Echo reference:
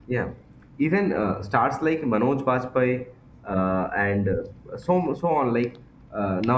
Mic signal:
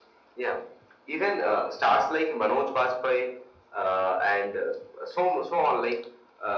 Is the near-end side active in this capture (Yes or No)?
No